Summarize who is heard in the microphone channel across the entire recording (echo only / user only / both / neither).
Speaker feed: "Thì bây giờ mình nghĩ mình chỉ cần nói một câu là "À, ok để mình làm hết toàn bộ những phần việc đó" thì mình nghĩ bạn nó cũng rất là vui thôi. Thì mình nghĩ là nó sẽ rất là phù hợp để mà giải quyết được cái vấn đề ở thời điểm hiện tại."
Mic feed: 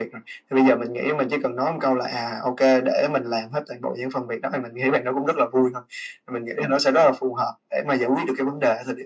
echo only